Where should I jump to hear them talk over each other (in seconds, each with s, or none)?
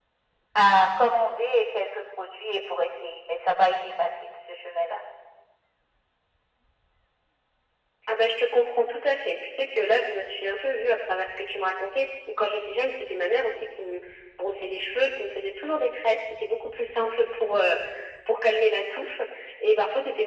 none